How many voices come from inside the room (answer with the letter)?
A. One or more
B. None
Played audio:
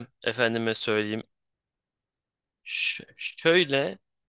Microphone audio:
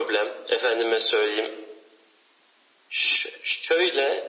B